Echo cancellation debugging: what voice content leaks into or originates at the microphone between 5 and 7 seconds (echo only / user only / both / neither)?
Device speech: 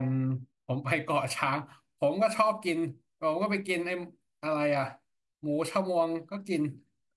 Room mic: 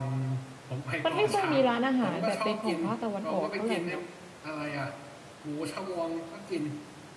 echo only